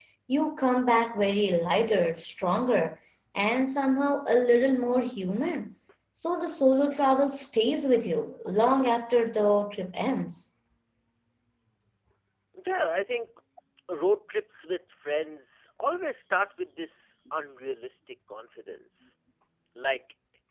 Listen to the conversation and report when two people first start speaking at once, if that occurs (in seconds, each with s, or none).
none